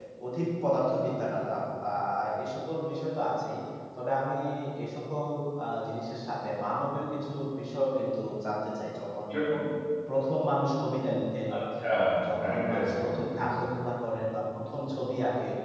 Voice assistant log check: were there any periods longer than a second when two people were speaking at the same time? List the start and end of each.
12.4-13.7

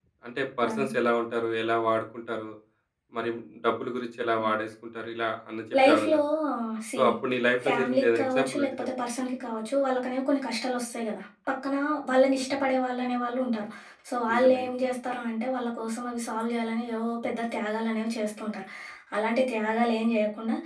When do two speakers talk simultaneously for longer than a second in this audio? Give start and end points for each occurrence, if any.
7.6-8.9

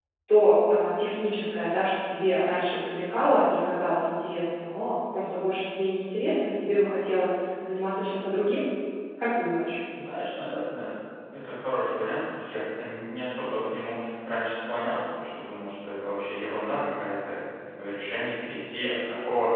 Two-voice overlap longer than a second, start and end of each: none

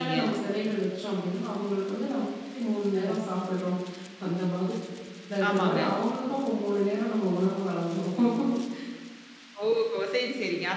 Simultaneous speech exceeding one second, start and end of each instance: none

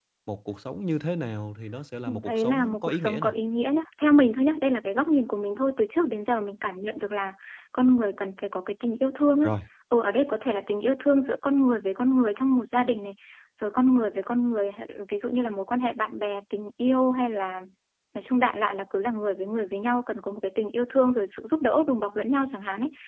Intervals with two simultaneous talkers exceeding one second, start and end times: 2.1-3.3

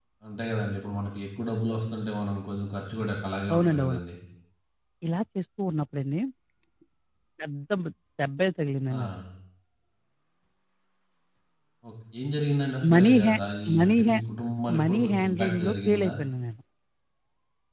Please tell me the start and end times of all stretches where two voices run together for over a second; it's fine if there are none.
14.8-16.1

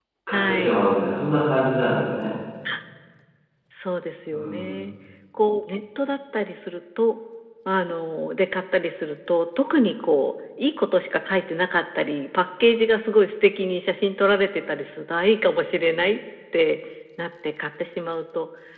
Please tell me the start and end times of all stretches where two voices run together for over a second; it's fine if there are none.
none

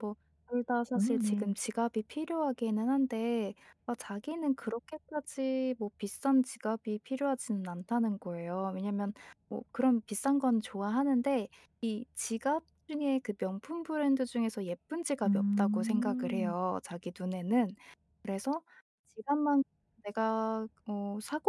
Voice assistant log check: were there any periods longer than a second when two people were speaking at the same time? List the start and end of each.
15.2-16.5

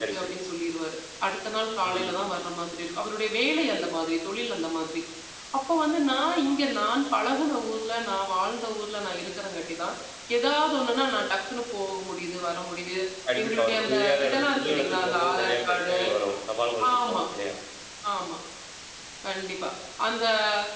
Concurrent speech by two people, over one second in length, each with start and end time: 13.4-15.9

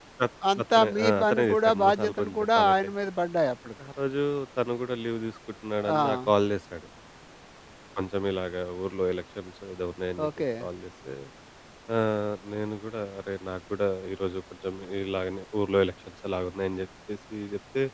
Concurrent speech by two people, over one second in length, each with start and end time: 0.6-2.8

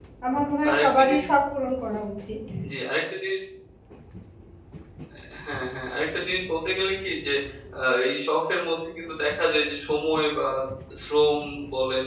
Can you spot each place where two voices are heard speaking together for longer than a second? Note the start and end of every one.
none

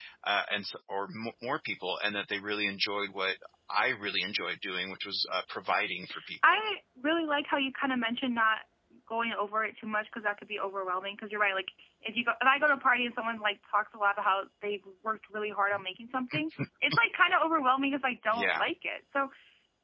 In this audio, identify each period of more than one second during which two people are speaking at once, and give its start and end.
none

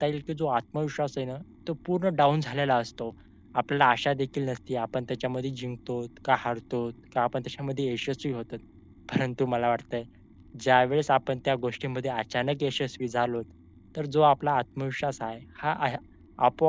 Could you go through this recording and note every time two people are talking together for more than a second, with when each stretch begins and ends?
none

